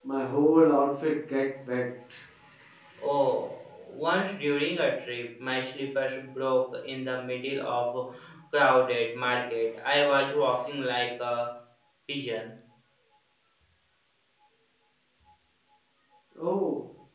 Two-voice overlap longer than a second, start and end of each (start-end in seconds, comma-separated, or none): none